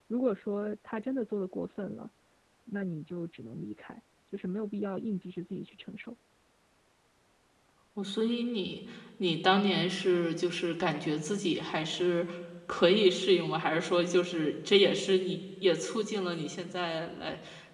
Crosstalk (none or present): none